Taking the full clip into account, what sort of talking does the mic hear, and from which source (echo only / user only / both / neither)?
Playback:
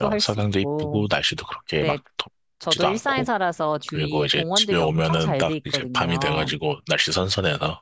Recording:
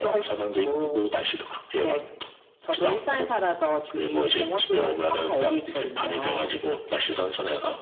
both